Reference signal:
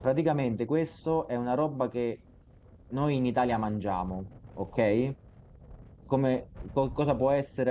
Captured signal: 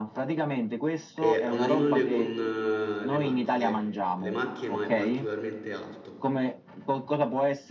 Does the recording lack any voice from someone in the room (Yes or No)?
No